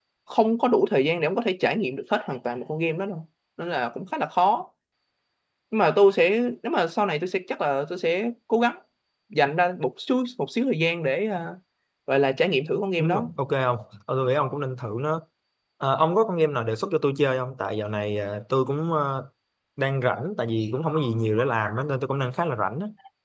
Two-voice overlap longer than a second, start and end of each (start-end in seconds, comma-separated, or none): none